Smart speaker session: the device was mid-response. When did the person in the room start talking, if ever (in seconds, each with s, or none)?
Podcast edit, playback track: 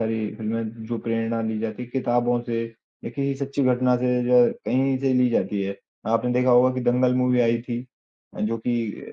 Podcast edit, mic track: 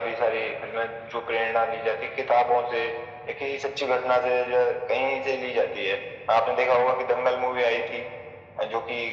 none